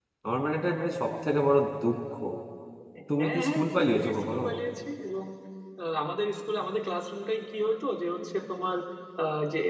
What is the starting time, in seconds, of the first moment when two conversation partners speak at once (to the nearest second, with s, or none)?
3 s